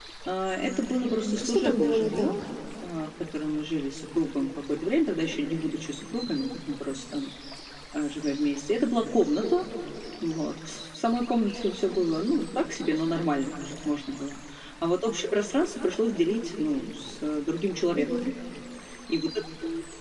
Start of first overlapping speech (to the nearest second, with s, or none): 1 s